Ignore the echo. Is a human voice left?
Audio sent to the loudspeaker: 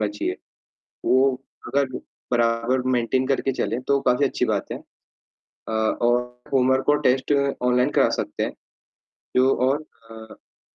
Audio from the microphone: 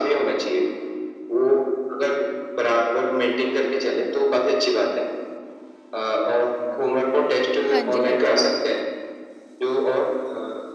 Yes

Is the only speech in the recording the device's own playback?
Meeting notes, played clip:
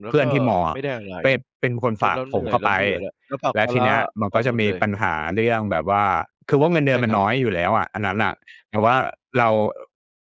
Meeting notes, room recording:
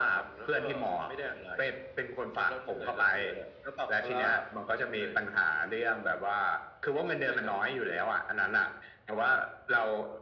Yes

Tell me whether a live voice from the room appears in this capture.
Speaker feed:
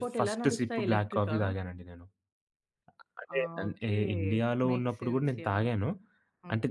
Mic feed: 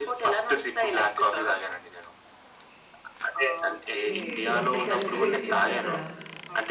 Yes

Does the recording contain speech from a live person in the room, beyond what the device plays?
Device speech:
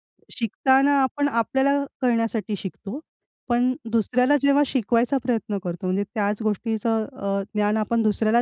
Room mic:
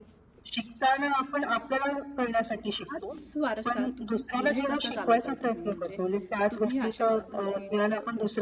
Yes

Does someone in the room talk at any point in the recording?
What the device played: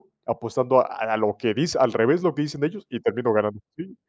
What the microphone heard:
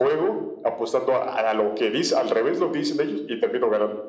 No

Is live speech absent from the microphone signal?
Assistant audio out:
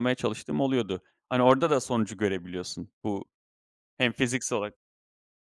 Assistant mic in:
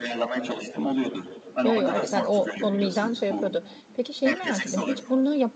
No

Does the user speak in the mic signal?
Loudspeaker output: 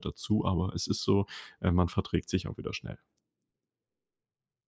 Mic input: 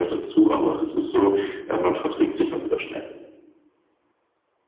No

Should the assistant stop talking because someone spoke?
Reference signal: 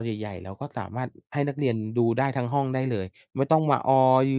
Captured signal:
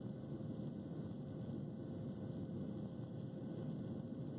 No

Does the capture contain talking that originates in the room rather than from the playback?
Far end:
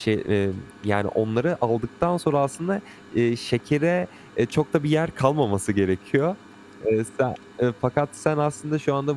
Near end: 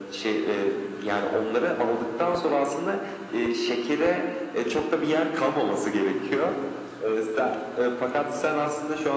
No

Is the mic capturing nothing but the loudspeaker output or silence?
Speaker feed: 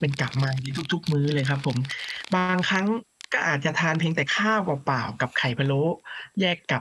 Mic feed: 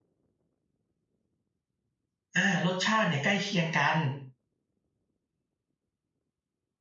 No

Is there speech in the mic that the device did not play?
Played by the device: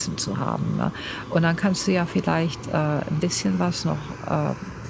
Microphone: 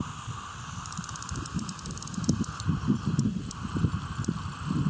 No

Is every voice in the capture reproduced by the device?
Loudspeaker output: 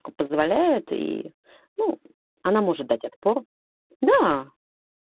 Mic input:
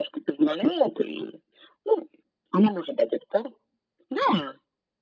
Yes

